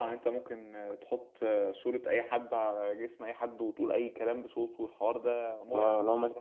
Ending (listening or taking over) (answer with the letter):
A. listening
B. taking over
B